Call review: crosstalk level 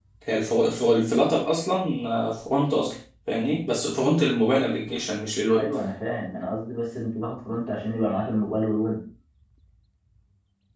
none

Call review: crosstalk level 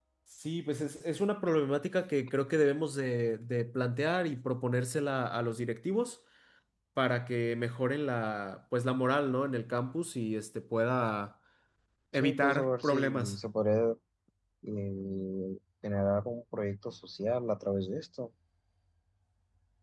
present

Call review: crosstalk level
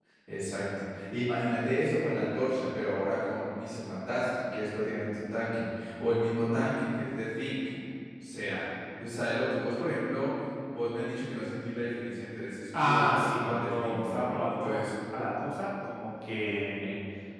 present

